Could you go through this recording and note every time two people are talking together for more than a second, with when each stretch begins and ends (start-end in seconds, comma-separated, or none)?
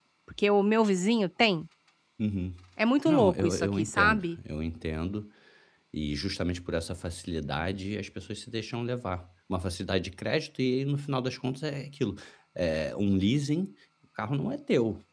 3.1-4.3